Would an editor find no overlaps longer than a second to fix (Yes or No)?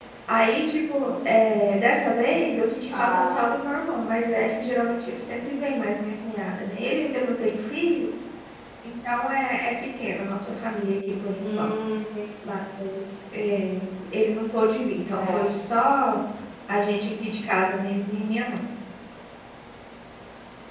Yes